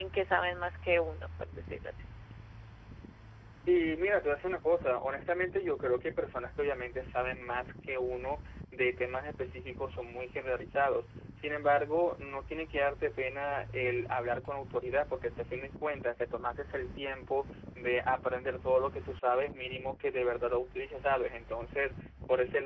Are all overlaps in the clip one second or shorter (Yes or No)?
Yes